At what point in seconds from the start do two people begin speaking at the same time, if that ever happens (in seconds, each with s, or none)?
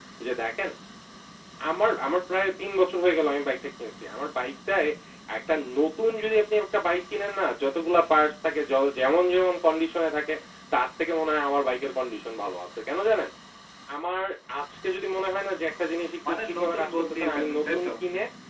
16.2 s